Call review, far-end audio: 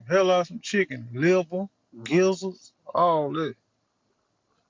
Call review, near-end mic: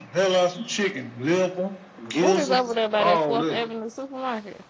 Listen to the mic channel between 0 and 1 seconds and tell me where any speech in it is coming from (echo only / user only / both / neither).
echo only